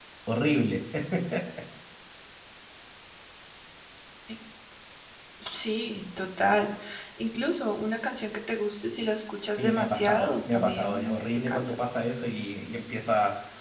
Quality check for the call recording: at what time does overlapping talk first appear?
10 s

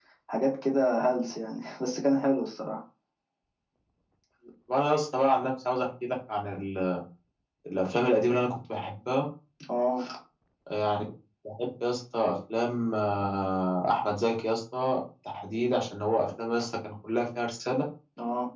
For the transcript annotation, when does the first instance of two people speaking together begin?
none

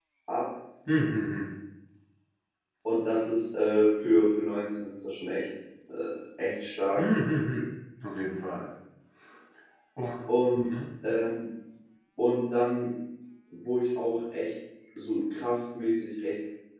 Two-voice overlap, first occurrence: none

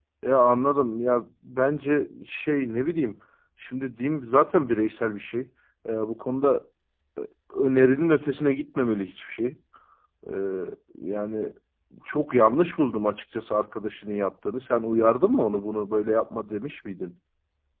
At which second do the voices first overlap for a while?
none

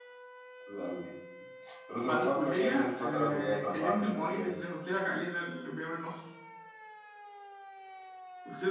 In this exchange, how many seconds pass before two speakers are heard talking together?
2 s

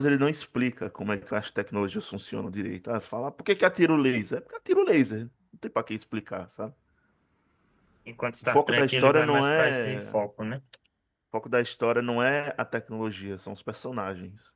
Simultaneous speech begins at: 8 s

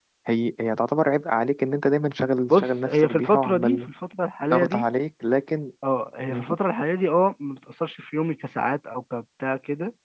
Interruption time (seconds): 3 s

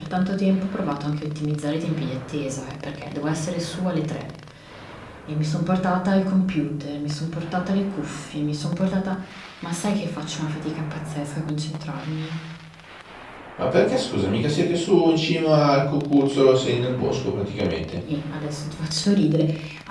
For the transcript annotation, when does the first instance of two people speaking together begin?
none

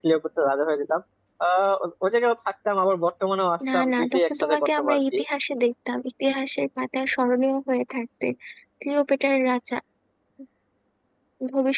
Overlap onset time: 4 s

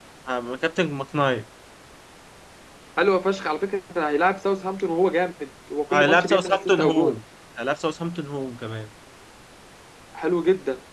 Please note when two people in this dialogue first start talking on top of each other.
6 s

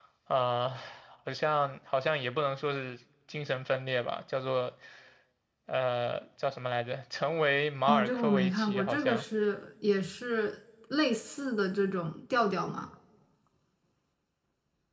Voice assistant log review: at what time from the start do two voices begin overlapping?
8 s

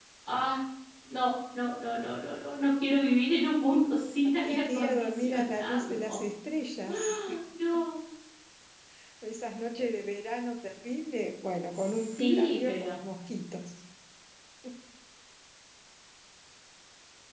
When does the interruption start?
4 s

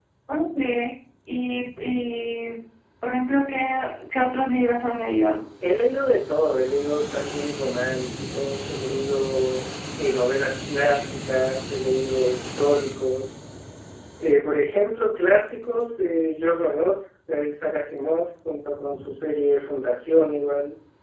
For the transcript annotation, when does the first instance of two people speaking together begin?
none

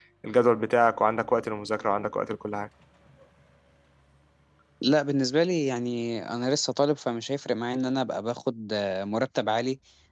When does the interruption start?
none

